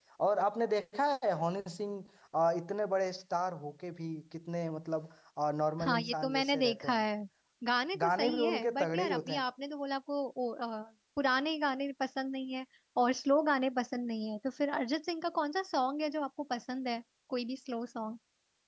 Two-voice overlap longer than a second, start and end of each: 5.8-7.0, 8.0-9.4

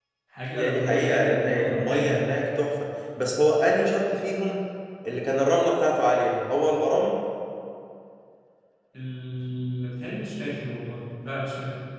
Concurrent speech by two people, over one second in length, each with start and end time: 0.6-2.2

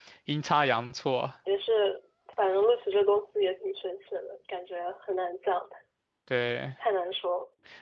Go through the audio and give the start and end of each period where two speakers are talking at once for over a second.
none

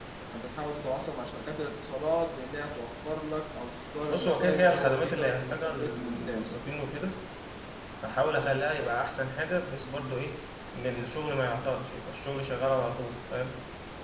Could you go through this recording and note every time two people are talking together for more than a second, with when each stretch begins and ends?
4.1-6.6

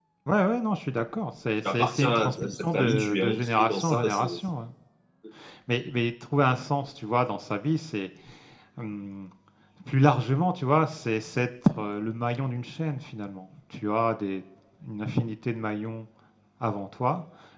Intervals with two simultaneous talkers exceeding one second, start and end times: 1.6-4.2

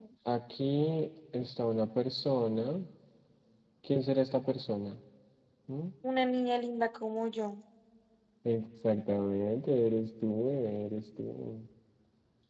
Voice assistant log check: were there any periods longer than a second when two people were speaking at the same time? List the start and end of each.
none

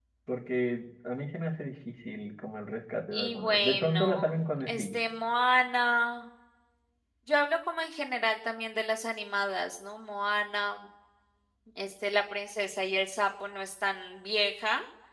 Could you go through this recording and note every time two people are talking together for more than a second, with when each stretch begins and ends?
3.1-4.9

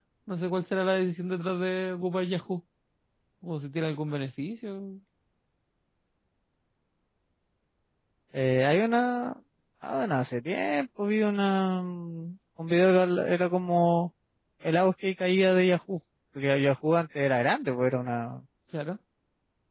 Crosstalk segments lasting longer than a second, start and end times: none

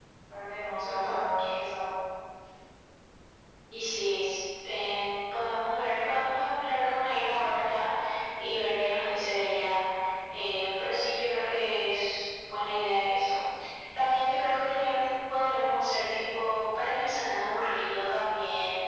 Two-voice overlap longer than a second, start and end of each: none

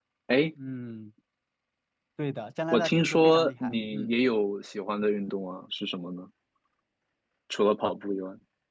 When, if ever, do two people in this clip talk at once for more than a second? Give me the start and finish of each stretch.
2.7-4.2

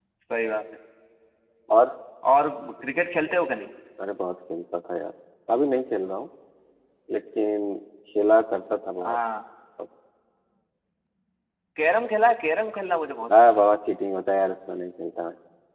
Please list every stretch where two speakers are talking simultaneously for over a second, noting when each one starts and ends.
none

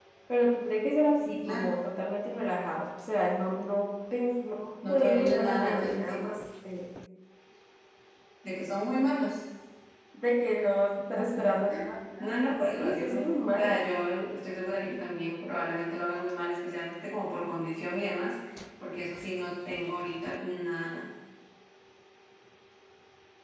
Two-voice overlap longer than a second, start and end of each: 4.9-6.2, 12.2-13.8

